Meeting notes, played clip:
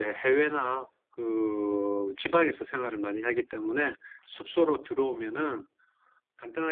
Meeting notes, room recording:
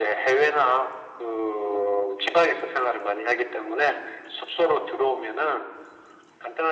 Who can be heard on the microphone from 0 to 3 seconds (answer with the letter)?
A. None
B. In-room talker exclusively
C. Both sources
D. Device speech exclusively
D